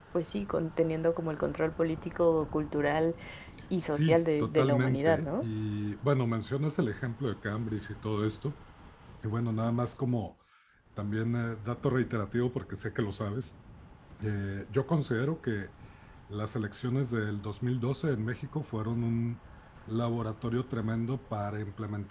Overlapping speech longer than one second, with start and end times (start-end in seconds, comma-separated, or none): 3.9-5.4